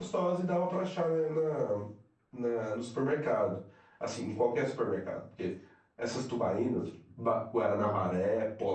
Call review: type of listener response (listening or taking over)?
listening